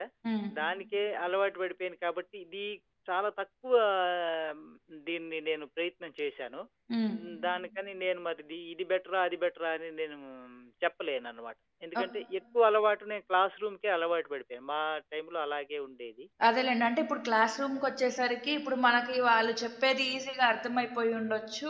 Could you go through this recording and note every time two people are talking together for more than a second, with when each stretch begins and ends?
none

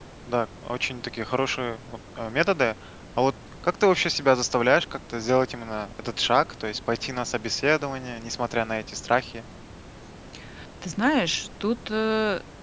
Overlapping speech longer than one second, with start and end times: none

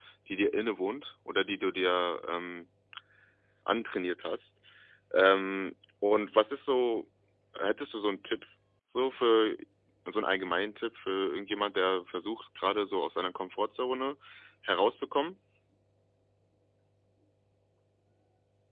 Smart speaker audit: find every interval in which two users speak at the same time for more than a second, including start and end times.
none

